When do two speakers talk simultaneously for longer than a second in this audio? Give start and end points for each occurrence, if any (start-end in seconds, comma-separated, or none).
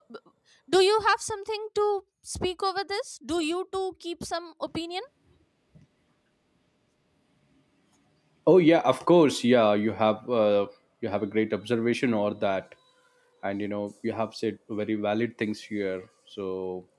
none